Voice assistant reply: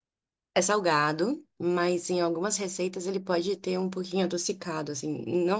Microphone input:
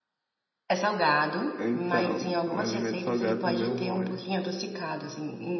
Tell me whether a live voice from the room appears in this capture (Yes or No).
Yes